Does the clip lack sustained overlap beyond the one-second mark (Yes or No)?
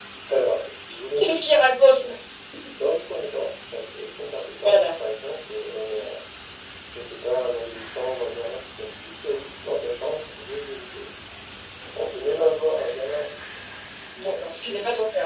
Yes